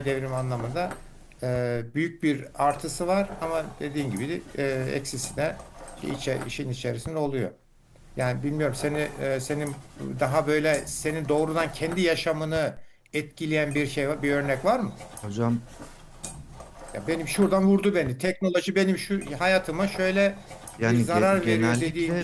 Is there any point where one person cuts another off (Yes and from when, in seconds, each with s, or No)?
Yes, from 20.8 s